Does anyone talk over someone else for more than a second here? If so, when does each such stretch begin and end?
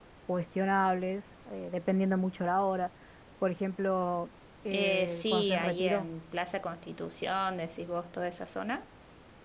4.7-6.1

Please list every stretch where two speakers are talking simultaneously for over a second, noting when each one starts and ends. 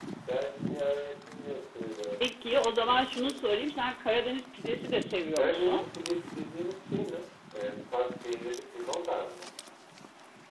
none

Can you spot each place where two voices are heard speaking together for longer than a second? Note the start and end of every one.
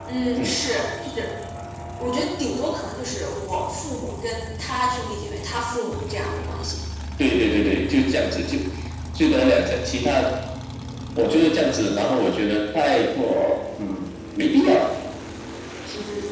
none

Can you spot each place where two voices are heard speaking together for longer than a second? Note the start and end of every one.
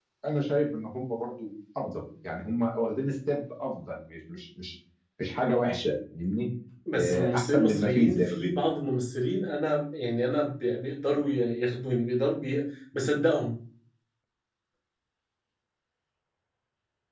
7.0-8.7

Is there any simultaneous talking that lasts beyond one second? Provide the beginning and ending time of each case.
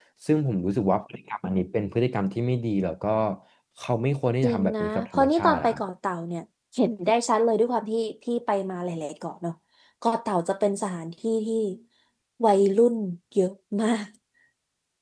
4.4-5.8

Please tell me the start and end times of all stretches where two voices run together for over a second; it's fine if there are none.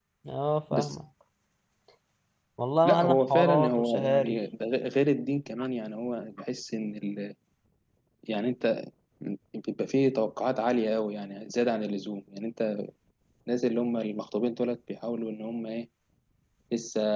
2.8-4.4

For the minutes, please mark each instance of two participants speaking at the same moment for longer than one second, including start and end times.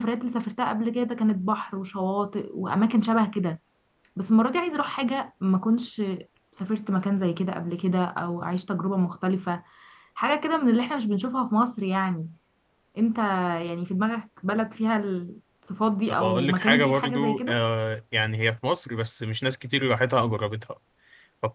16.1-17.6

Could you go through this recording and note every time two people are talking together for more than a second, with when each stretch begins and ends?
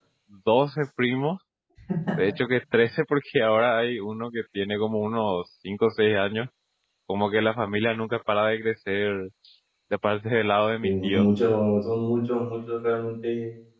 none

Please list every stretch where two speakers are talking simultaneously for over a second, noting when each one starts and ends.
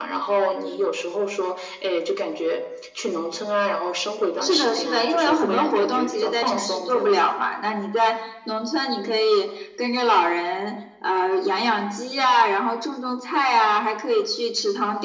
4.4-7.1

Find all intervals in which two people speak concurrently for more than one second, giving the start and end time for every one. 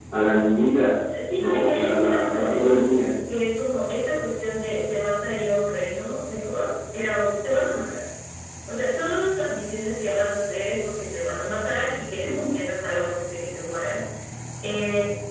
1.4-3.0

